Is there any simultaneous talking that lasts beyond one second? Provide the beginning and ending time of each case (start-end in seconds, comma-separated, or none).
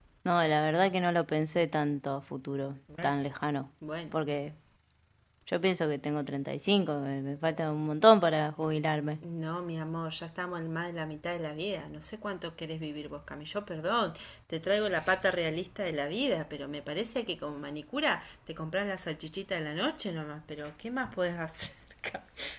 none